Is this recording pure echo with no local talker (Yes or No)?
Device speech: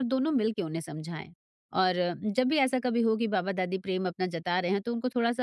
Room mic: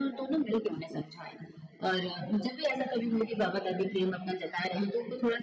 Yes